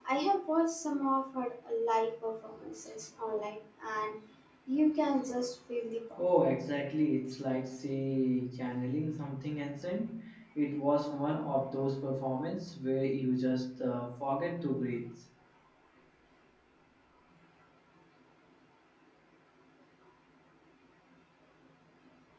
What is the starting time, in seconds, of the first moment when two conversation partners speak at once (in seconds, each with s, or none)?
none